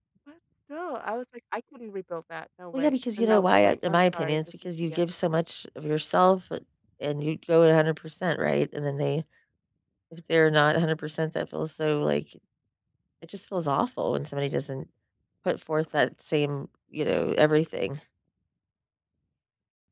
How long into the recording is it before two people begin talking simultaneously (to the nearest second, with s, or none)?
3 s